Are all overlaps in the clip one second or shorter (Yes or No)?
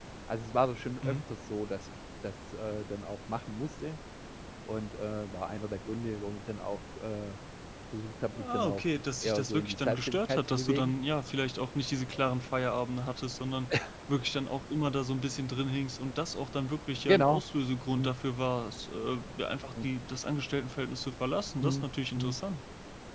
No